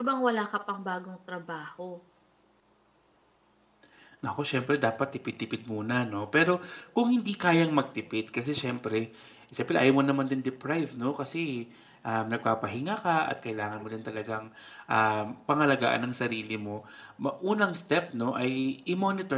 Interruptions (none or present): none